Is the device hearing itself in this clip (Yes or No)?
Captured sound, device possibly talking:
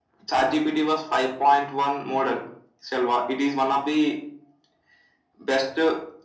Yes